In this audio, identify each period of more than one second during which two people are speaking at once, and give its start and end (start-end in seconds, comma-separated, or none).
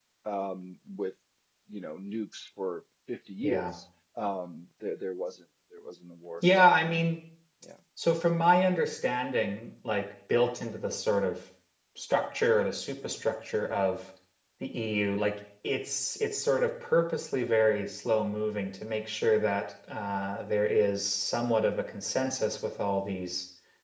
none